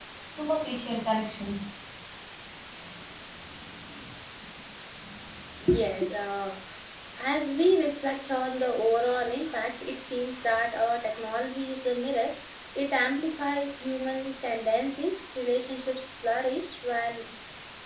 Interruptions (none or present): none